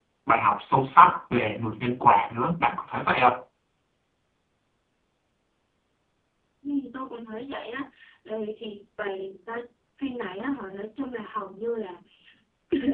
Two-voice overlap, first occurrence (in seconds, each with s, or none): none